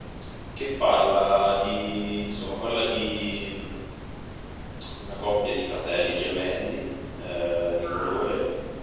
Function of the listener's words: listening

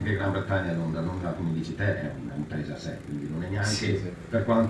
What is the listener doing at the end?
listening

